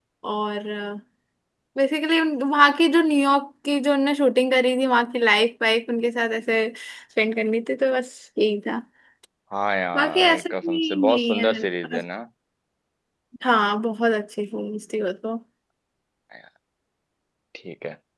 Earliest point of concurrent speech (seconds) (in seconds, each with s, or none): 9.9 s